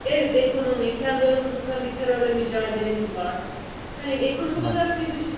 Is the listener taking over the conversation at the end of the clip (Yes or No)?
No